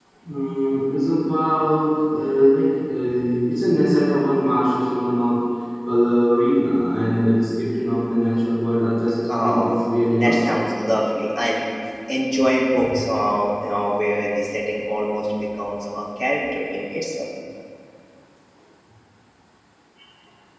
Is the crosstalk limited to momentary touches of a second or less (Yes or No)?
No